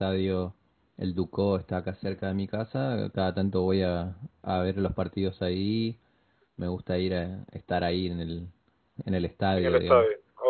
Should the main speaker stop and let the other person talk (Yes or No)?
Yes